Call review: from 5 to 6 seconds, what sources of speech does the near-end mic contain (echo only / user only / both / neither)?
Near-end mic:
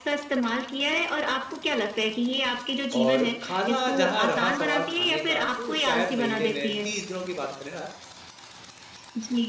both